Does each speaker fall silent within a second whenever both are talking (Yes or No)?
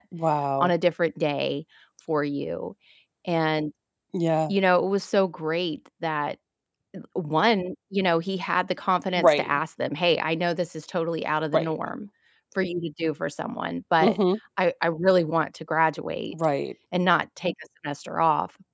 Yes